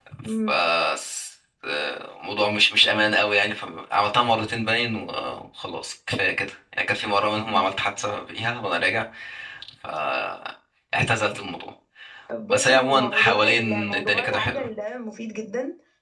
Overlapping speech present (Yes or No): Yes